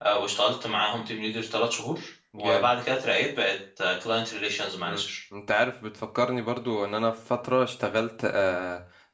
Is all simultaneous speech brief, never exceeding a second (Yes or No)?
Yes